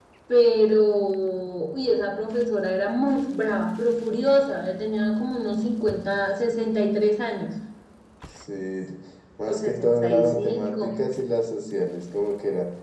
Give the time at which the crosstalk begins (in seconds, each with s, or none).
9.5 s